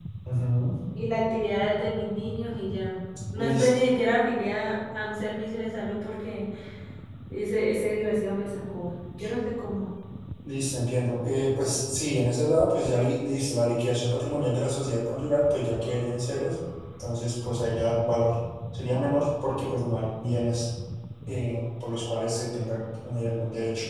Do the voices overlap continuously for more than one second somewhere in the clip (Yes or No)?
No